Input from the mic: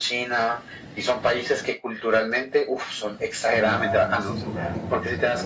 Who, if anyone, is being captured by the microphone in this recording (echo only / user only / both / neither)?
both